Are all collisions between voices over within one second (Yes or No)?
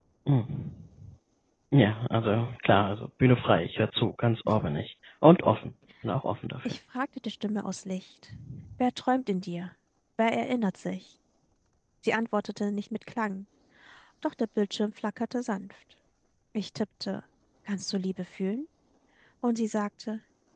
Yes